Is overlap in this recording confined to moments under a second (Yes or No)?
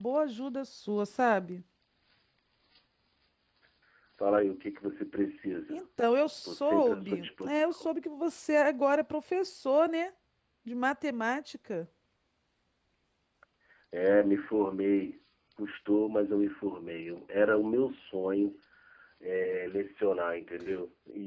No